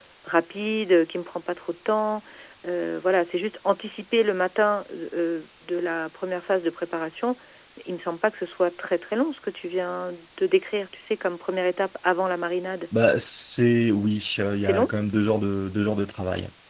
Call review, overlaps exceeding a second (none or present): none